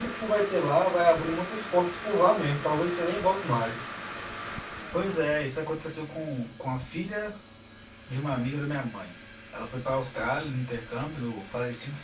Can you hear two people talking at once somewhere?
No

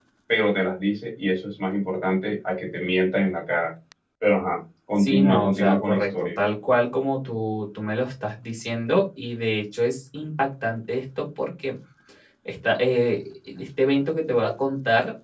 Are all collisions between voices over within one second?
No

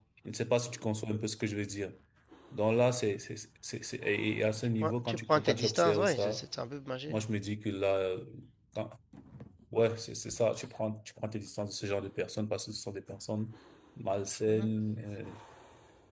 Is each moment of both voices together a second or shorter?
No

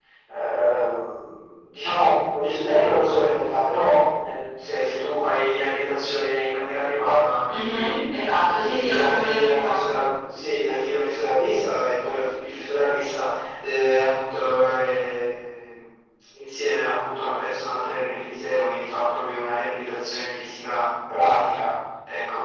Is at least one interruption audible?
Yes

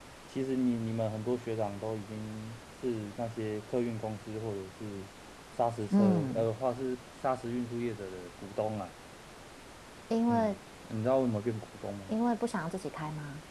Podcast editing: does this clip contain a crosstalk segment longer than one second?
No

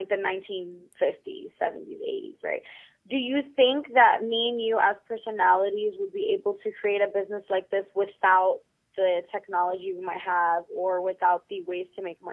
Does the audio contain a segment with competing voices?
No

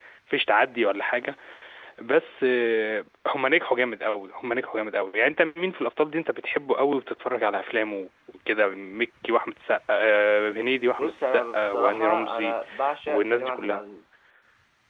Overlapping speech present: Yes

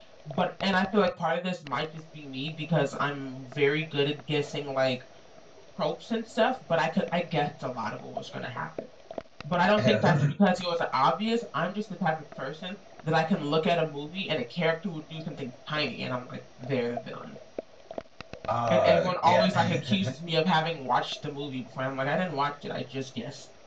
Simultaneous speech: Yes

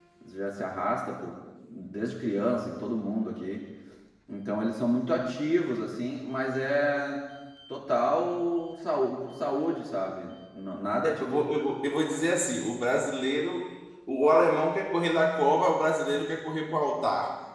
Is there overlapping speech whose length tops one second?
No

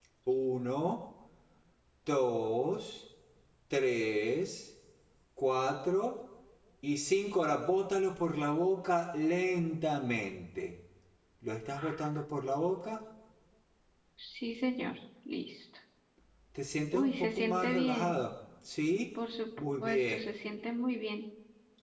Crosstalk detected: Yes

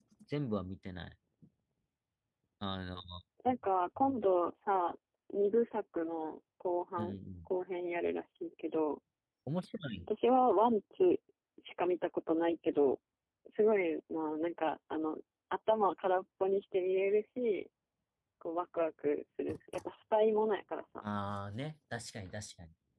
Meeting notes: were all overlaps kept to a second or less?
Yes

